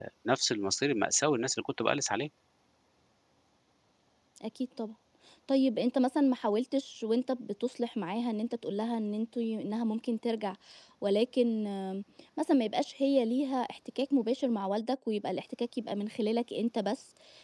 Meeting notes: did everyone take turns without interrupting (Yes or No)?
Yes